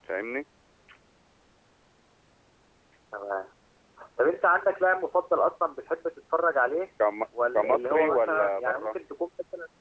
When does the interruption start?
7.5 s

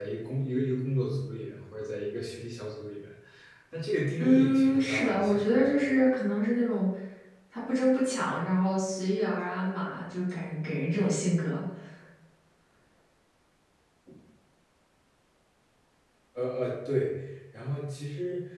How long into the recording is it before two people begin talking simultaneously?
4.2 s

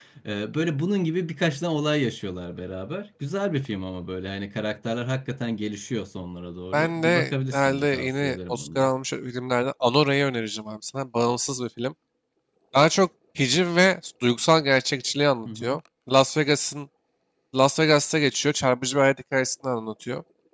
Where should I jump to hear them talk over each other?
6.7 s

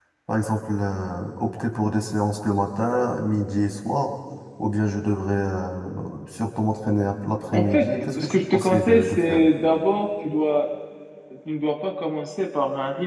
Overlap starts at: 7.5 s

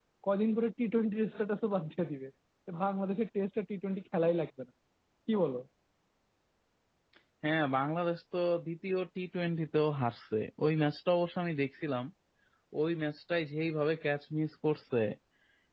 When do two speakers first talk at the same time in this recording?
none

